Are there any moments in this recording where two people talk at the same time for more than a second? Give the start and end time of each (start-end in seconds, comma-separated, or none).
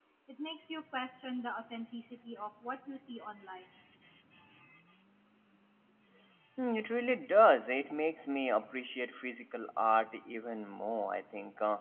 none